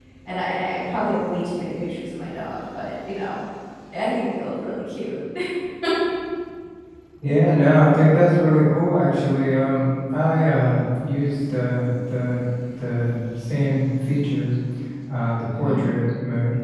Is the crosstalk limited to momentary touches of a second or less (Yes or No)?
Yes